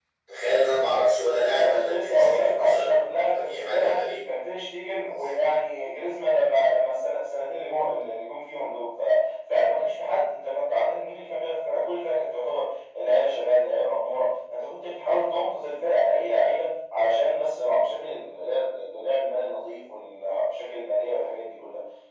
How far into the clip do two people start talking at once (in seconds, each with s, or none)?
1.5 s